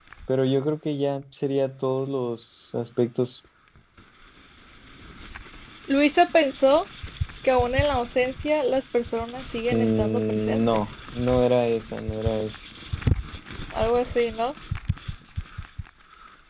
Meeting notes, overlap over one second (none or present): present